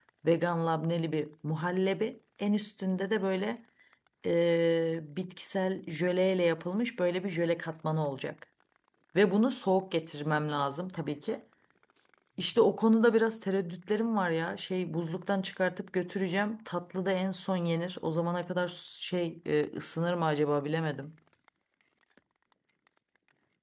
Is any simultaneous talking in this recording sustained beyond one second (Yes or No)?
No